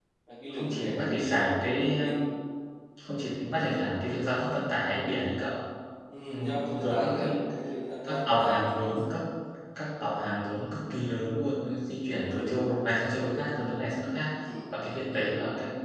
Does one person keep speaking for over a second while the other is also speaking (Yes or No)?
Yes